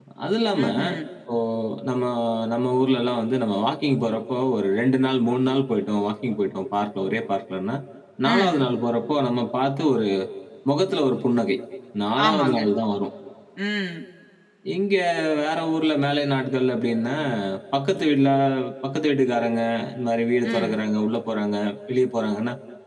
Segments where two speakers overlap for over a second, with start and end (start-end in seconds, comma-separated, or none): none